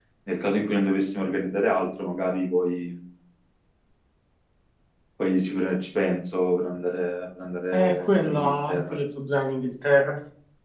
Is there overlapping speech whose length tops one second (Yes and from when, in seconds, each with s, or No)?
Yes, from 7.7 s